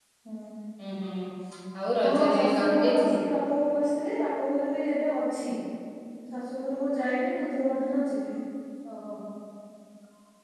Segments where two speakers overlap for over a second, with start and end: 2.0-3.2

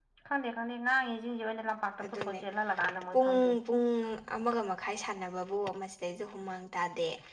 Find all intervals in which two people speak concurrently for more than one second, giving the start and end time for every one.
none

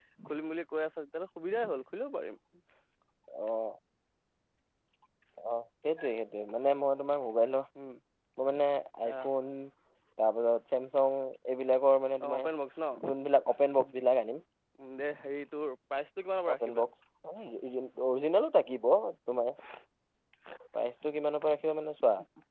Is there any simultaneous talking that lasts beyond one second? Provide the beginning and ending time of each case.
none

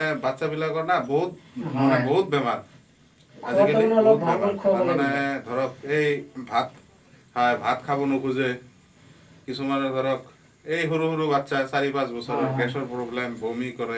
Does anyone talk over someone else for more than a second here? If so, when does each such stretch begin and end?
3.5-5.1

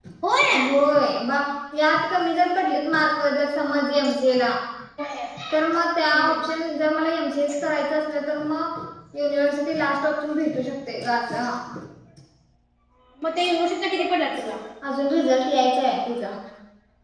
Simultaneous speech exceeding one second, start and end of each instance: none

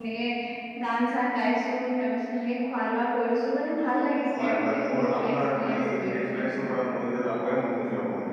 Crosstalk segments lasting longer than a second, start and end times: 4.3-6.4

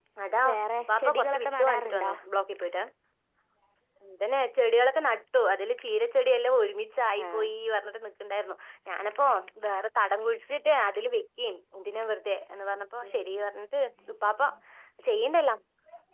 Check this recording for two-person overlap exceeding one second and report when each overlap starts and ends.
0.9-2.1

